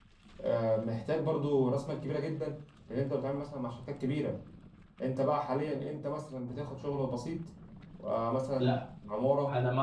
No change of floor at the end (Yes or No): No